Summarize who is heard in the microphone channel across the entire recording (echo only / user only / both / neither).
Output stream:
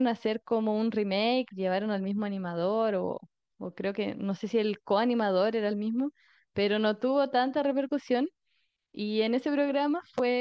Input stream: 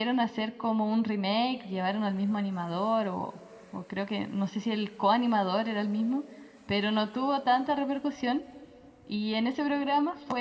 echo only